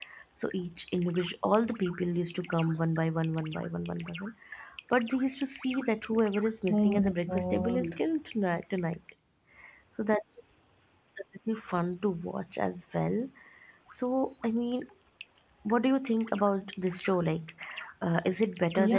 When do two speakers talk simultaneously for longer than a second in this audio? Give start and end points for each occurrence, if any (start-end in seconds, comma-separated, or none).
6.7-8.0